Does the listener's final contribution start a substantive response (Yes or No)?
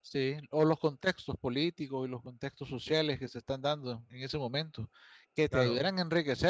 No